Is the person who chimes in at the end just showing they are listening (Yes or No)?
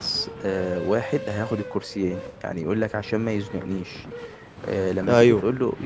Yes